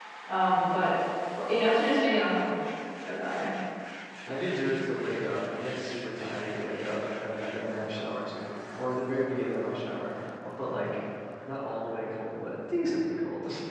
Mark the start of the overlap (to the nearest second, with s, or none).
none